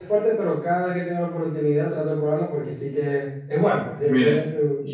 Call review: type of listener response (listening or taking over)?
taking over